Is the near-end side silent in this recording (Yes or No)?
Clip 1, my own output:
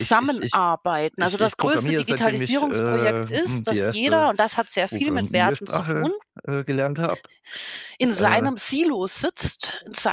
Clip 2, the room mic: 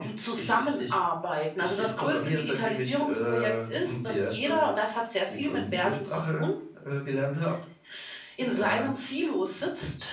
Yes